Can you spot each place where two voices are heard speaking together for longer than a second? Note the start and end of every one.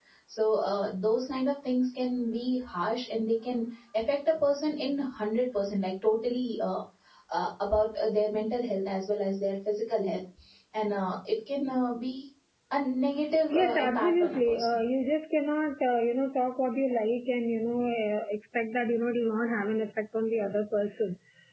13.5-14.8

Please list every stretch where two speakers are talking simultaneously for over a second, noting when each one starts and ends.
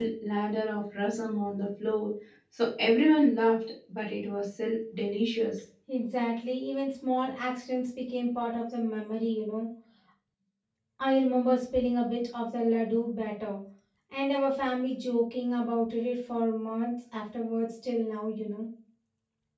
none

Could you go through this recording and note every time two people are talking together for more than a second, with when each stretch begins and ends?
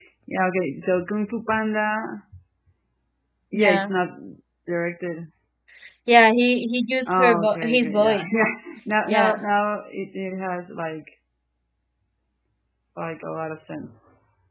7.1-8.4

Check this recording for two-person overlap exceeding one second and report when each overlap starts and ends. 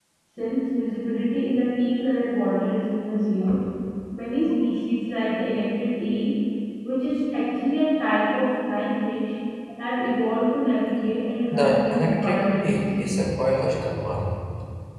11.5-13.2

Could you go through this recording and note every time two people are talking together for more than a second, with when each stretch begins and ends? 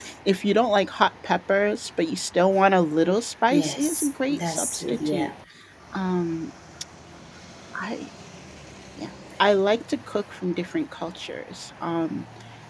3.5-5.3

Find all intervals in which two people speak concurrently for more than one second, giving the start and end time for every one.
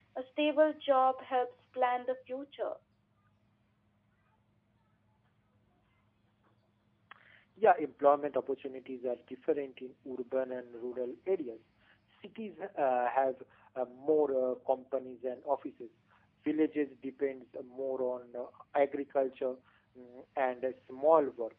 none

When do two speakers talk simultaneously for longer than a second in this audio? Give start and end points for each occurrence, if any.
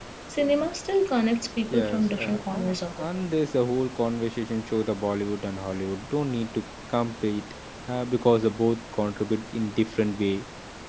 1.7-3.1

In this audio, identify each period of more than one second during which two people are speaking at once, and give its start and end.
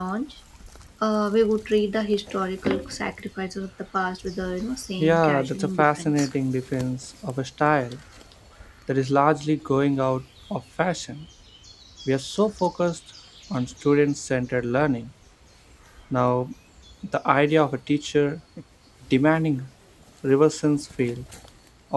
5.0-6.3

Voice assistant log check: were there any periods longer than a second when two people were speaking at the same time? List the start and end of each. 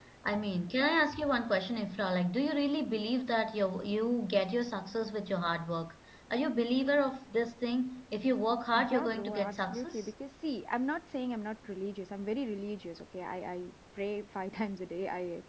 8.7-10.1

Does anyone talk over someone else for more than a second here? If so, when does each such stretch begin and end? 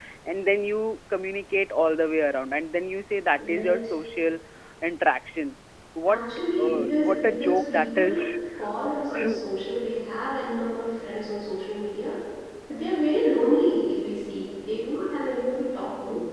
6.6-8.2

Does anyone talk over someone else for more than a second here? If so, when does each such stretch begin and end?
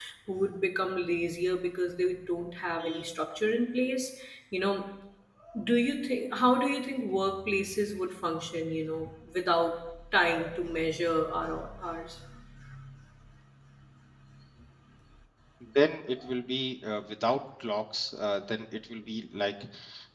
none

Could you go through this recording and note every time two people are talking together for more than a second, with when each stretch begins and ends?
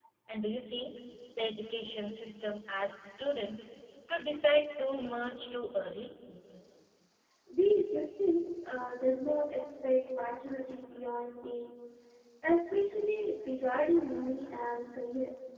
none

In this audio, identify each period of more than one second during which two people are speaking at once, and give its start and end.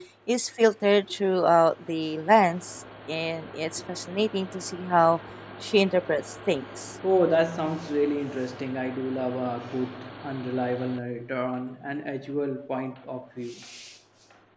none

